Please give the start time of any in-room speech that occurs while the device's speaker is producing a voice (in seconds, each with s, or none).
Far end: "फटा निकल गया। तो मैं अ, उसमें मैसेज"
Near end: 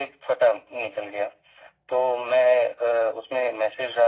none